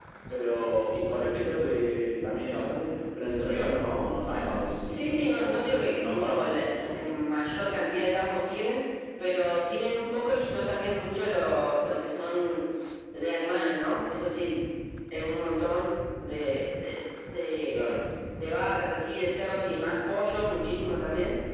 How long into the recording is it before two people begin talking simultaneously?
4.9 s

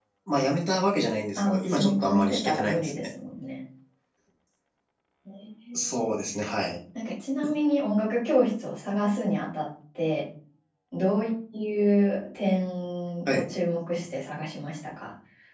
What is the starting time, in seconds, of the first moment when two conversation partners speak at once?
1.4 s

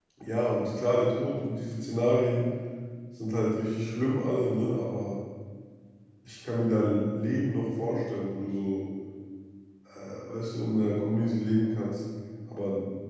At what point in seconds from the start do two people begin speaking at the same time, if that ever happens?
none

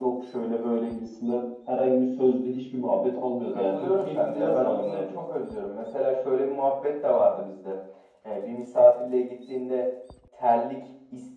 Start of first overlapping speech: 3.5 s

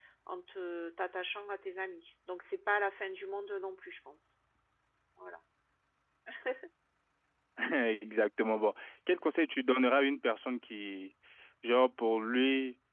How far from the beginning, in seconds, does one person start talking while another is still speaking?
none

